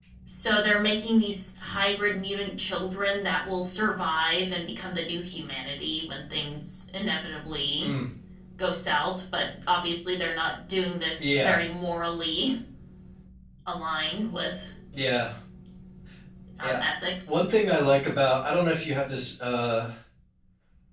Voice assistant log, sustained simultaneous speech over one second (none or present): none